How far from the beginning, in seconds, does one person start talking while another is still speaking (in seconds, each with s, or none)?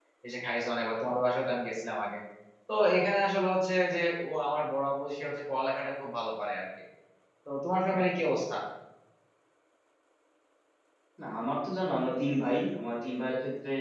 none